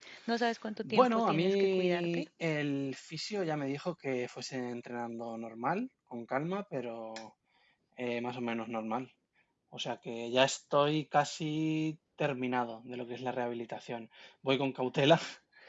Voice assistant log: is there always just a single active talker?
No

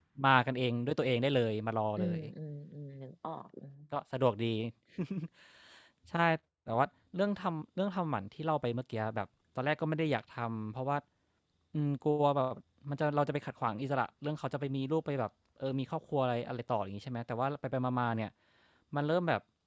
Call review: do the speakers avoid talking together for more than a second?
Yes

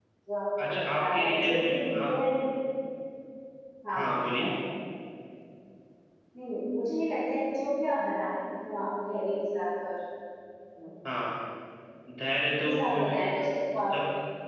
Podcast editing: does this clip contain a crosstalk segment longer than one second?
Yes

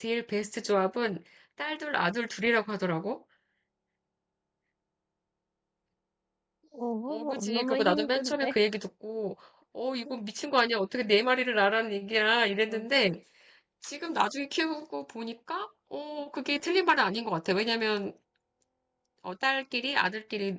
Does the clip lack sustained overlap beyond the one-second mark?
No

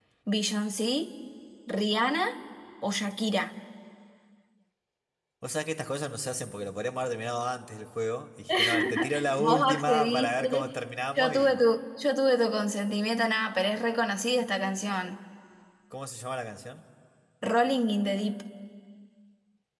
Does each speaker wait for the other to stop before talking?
No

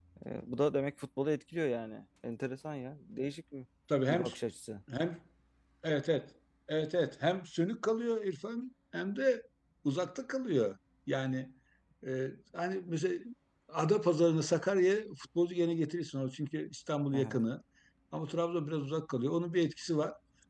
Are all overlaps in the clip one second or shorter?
Yes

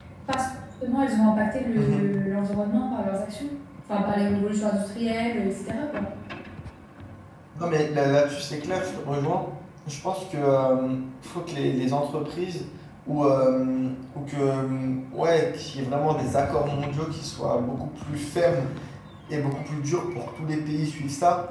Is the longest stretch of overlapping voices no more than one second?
Yes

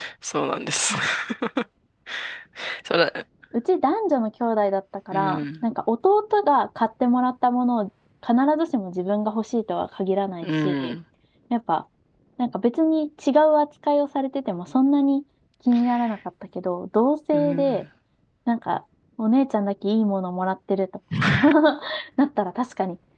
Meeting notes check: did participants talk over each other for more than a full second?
No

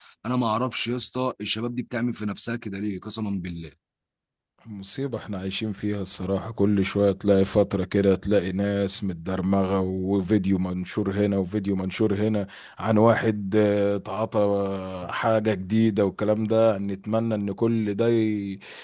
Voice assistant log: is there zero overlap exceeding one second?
Yes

